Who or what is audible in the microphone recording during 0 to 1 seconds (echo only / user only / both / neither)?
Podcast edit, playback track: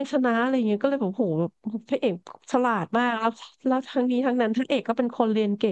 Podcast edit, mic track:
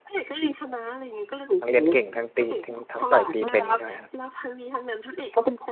echo only